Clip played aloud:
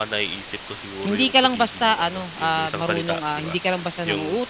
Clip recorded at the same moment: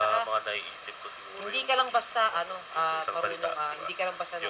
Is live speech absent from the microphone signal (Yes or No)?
Yes